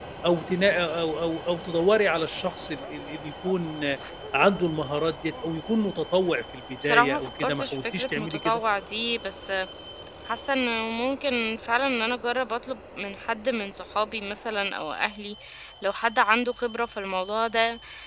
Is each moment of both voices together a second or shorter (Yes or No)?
No